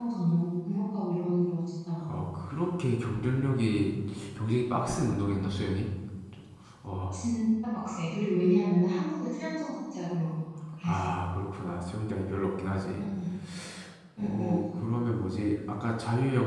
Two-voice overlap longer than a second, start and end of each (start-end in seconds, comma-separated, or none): none